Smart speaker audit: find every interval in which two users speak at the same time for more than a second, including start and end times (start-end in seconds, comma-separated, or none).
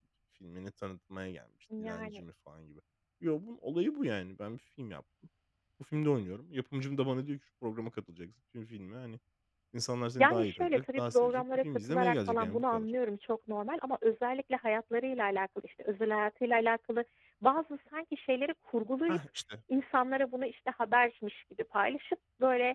10.2-12.8